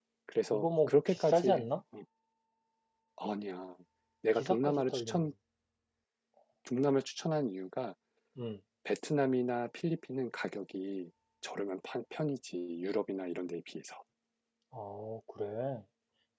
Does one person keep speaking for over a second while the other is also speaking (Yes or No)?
Yes